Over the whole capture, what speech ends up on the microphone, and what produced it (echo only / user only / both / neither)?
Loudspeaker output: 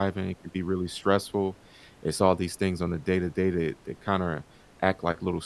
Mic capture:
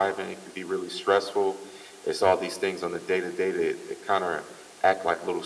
echo only